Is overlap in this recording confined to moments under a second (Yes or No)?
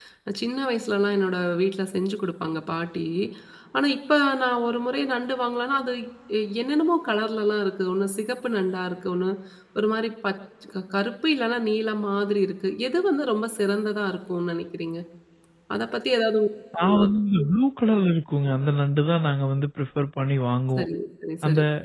Yes